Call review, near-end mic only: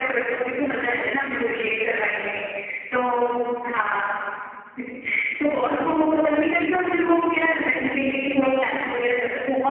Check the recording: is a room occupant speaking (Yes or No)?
No